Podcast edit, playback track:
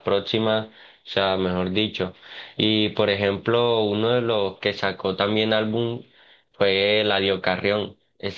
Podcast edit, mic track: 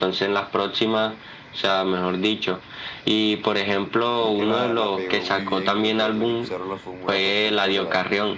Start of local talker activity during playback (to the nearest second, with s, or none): 4 s